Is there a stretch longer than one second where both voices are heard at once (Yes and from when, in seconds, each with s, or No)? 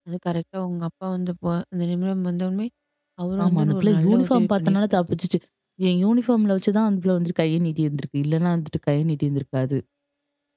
Yes, from 3.4 s